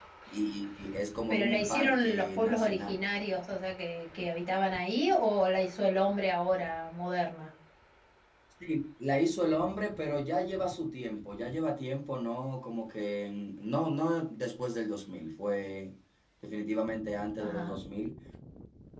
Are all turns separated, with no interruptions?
No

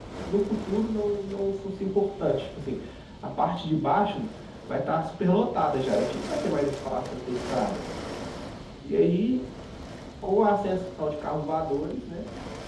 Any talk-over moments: No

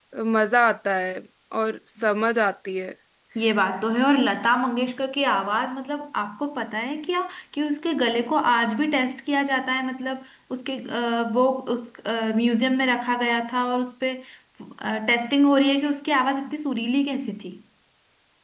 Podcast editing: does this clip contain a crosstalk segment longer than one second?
No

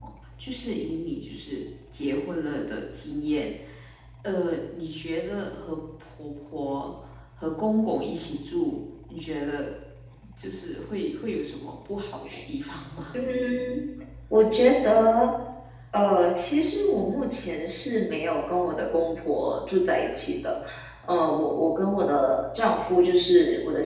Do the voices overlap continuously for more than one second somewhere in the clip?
No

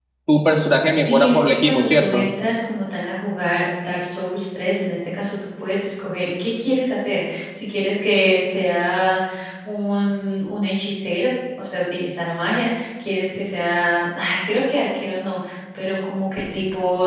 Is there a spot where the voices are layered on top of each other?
Yes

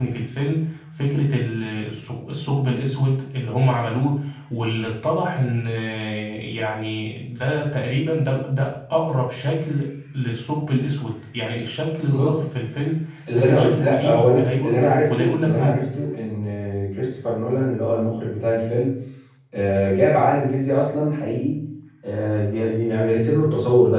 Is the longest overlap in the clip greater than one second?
Yes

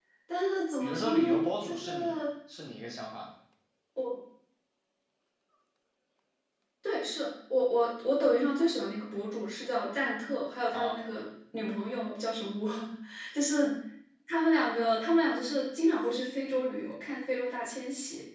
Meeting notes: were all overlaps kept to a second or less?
No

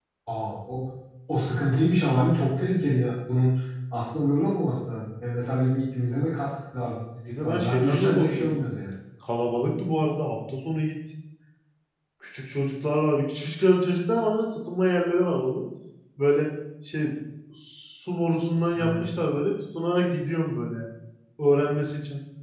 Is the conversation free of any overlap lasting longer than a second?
No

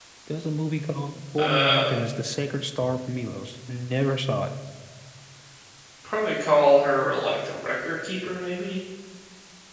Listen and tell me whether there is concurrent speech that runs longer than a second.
No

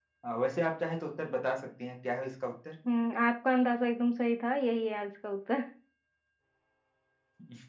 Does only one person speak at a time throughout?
Yes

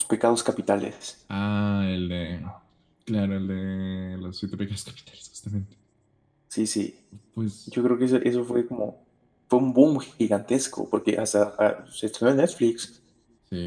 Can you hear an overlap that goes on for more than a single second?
No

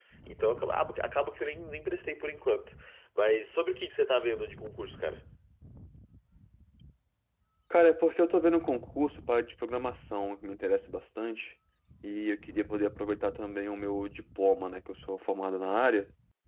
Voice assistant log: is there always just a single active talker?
Yes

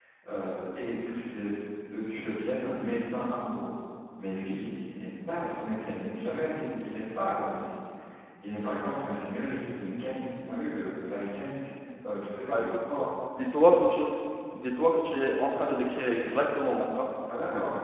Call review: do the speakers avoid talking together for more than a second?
Yes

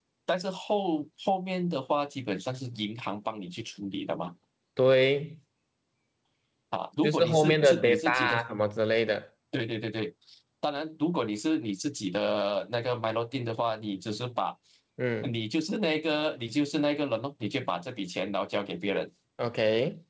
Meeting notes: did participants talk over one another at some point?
Yes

